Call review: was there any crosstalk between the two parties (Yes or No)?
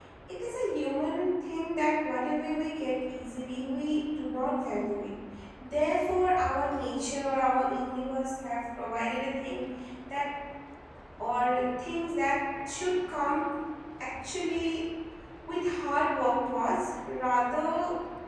No